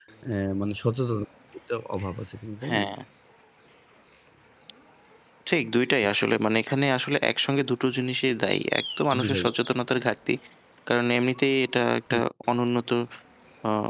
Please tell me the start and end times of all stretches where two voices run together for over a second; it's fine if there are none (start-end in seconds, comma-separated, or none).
none